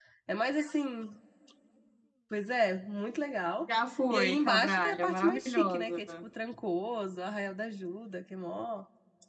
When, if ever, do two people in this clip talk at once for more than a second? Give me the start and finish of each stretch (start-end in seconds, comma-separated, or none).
4.1-6.0